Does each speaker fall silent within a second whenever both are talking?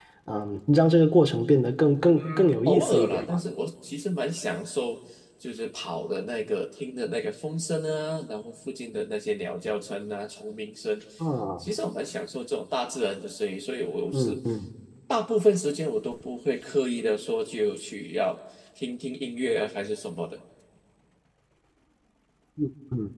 No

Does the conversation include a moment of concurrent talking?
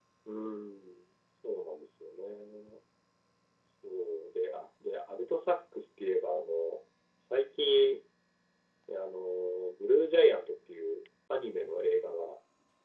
No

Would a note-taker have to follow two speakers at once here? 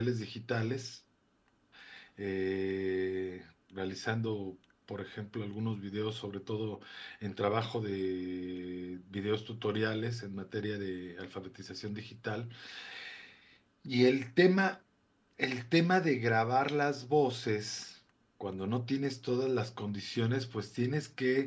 No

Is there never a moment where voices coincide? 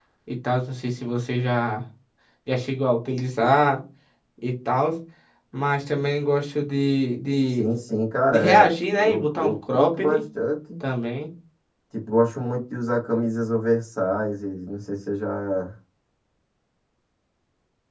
No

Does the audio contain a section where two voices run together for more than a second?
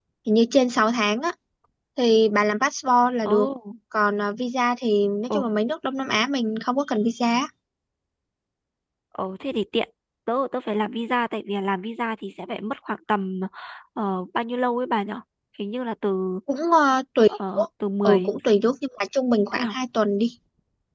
No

